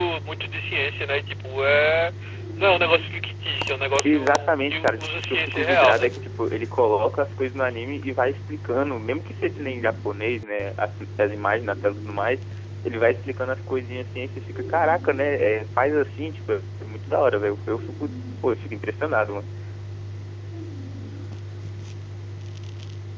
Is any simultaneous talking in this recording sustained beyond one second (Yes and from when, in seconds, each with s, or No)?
Yes, from 4.0 s